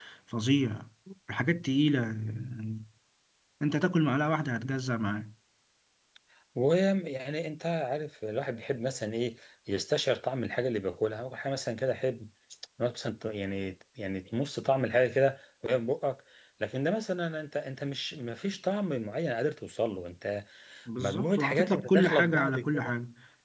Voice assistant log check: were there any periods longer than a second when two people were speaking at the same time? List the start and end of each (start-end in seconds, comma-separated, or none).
21.0-22.9